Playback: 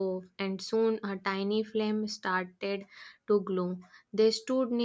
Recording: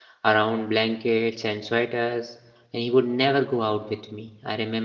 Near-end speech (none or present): present